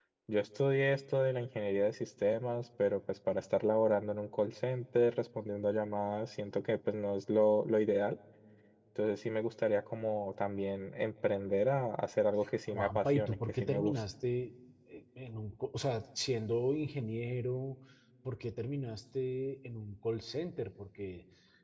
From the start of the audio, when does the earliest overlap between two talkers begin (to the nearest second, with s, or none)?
13 s